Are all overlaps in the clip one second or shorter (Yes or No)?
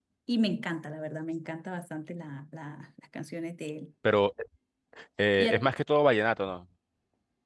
Yes